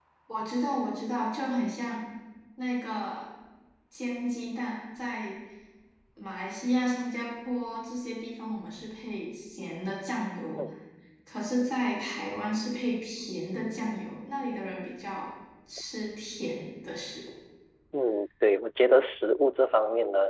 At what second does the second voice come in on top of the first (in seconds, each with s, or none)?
none